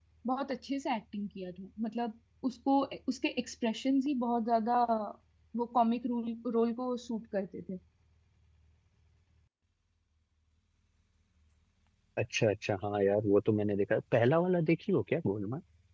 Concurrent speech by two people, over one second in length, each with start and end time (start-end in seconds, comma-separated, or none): none